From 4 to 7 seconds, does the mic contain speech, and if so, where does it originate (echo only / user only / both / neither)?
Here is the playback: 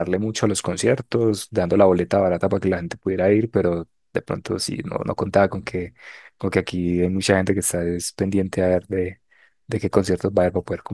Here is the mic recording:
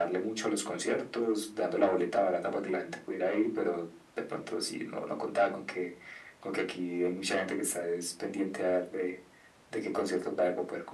echo only